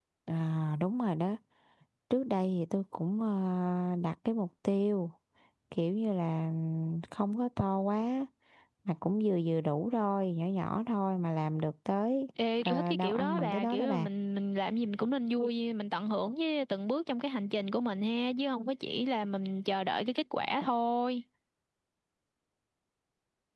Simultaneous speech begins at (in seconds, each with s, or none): 12.7 s